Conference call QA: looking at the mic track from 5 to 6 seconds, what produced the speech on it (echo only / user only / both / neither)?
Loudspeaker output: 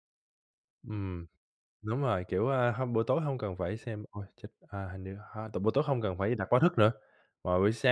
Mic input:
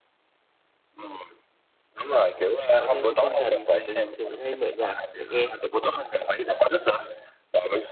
both